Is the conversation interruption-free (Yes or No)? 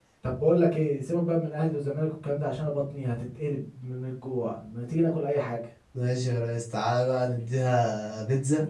Yes